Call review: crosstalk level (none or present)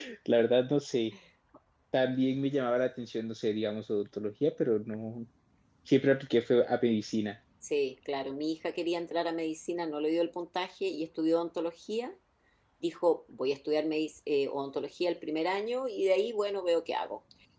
none